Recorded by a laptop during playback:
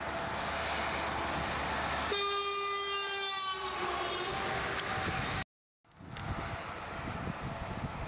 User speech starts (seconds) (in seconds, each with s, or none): none